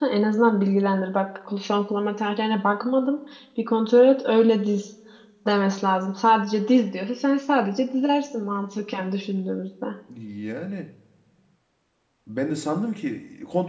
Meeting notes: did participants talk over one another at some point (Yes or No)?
No